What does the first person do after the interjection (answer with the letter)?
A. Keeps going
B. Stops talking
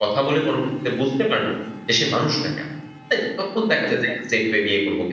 A